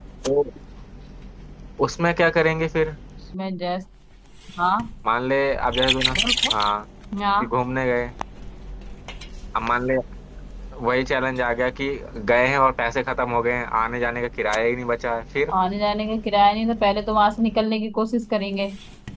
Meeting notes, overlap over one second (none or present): none